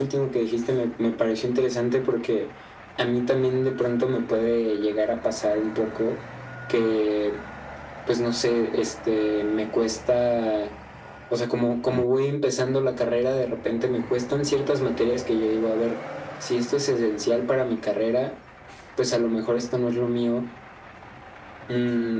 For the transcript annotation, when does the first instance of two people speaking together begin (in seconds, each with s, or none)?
none